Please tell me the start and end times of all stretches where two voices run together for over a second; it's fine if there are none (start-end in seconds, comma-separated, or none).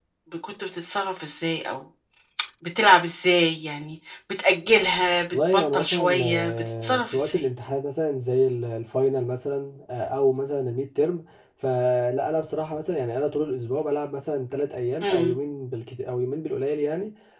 5.3-7.4